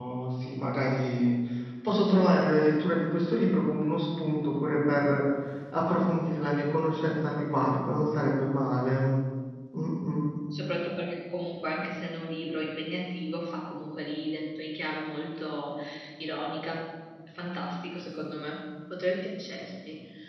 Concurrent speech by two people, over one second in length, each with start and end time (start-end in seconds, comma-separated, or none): none